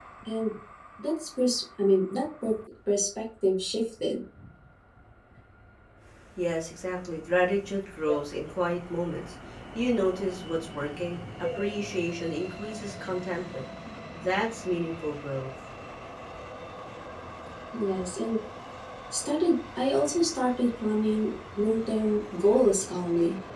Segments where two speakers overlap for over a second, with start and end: none

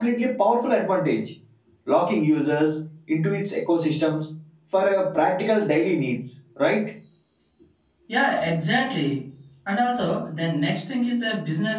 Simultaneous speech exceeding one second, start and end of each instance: none

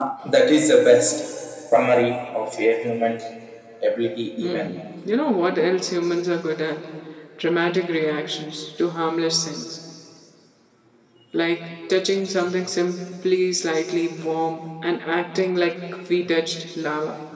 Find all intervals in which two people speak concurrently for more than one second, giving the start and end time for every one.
none

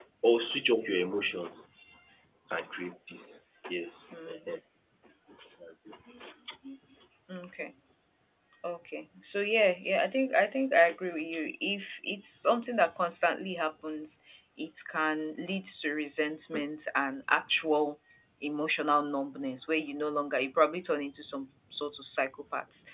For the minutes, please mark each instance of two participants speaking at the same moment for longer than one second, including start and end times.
none

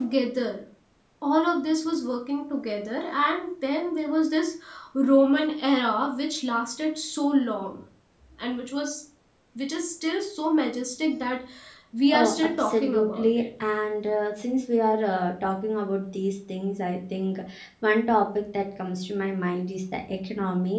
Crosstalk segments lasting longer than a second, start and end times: 12.1-13.4

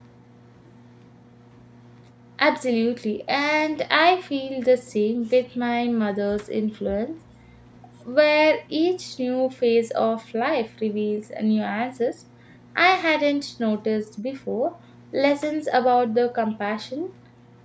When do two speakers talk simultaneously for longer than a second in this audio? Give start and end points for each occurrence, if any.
none

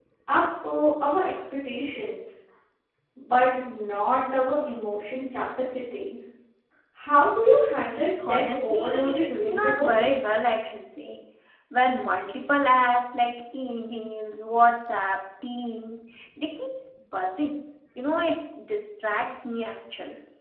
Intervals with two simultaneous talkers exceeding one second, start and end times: 8.3-9.9

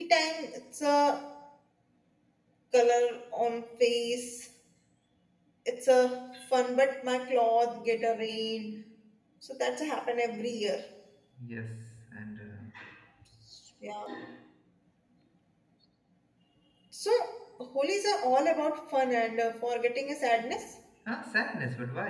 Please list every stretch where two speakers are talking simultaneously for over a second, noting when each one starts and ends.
none

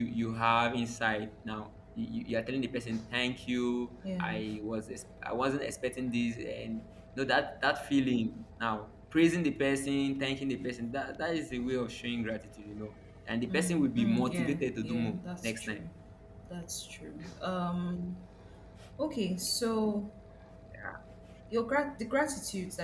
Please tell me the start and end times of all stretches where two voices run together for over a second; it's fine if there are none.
13.5-15.8

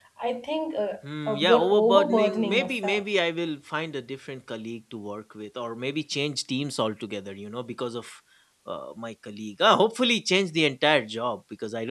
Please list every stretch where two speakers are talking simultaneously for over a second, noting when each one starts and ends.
1.3-3.0

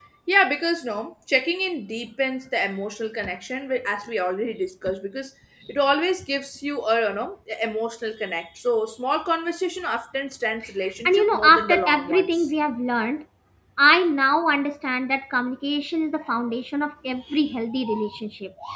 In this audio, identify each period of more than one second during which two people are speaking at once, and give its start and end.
11.0-12.5

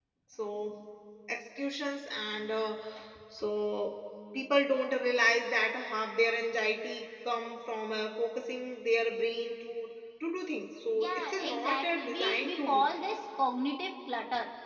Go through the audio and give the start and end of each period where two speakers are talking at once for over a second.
10.9-12.9

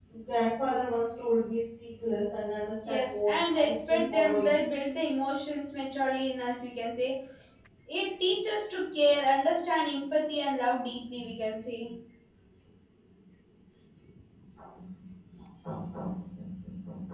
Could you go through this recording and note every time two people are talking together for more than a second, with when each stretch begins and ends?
2.9-4.5

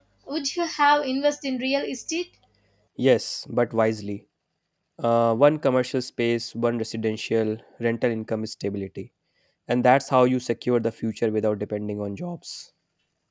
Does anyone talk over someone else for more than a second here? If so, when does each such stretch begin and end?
none

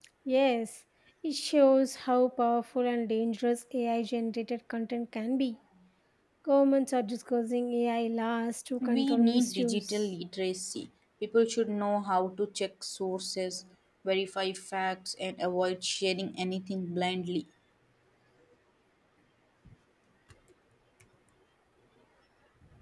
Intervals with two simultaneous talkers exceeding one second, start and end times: 8.8-10.0

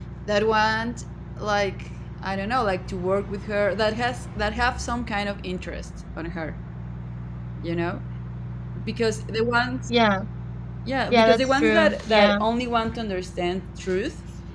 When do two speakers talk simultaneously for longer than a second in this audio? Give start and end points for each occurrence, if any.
11.1-12.4

